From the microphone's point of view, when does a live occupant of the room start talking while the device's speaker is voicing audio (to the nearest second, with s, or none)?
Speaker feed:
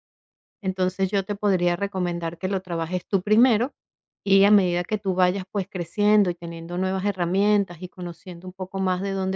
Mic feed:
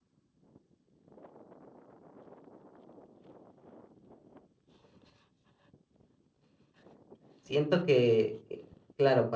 7 s